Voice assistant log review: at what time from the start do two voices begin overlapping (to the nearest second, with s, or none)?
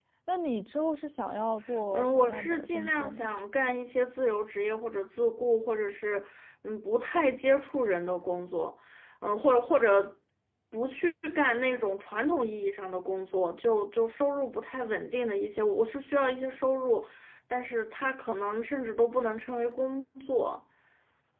2 s